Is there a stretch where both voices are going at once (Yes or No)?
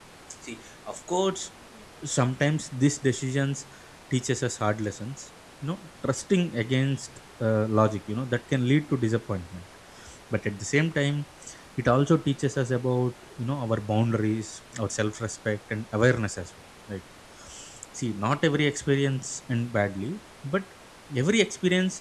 No